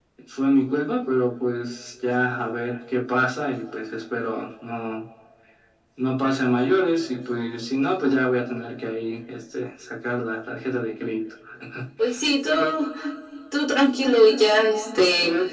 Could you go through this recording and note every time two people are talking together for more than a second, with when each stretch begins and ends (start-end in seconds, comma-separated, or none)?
none